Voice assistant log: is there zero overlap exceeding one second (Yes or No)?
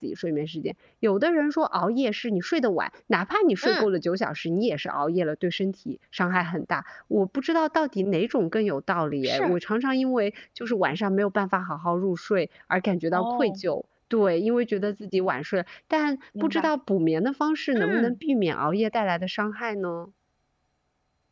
Yes